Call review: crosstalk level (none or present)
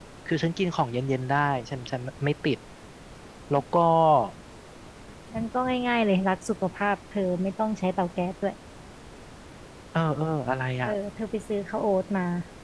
none